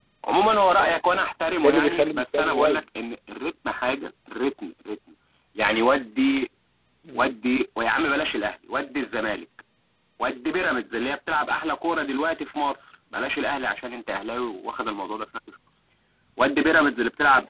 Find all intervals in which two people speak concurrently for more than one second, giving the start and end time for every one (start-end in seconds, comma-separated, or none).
1.6-2.8